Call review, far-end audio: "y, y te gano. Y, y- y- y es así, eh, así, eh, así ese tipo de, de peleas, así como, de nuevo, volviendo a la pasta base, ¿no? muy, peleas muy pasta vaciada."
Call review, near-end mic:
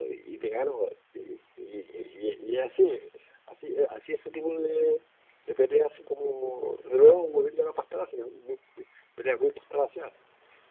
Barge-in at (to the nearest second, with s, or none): none